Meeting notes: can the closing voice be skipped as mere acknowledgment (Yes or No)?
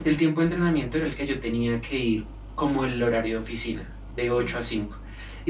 Yes